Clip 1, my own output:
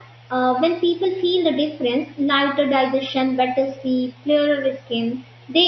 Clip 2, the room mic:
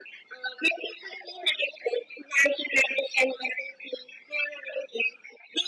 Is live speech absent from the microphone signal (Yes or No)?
Yes